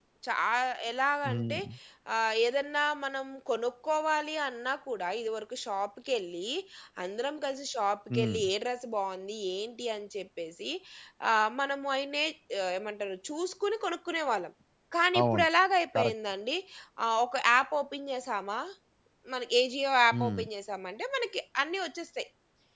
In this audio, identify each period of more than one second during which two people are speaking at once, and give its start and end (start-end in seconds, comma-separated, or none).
none